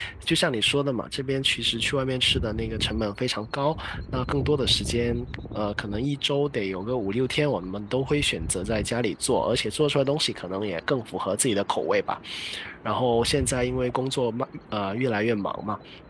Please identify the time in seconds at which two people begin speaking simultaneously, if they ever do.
none

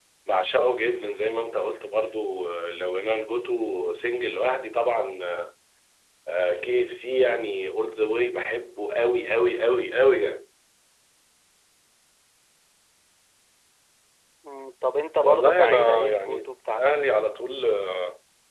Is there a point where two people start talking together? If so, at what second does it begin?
15 s

